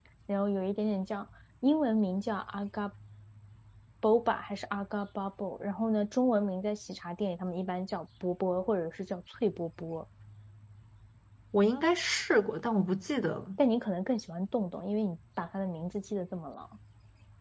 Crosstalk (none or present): none